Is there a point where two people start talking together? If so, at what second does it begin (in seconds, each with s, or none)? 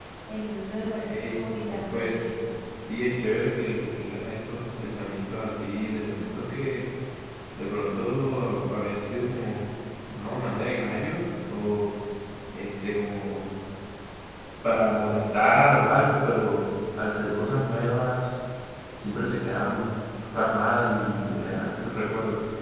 1.0 s